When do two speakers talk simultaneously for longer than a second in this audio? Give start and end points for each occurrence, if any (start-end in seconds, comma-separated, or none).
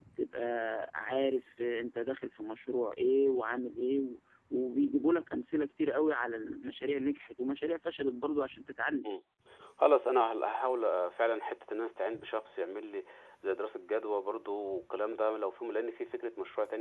none